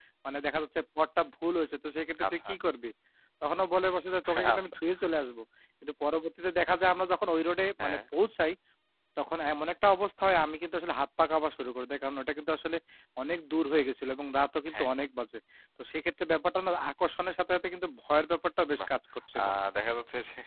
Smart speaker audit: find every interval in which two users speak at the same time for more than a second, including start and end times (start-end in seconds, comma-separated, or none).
none